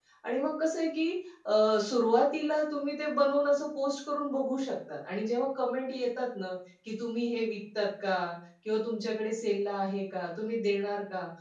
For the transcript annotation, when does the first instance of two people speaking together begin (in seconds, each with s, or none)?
none